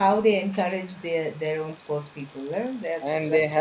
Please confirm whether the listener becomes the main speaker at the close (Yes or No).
Yes